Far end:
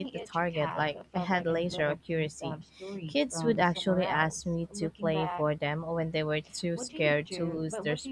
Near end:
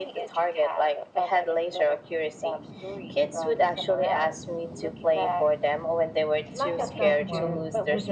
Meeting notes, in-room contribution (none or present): present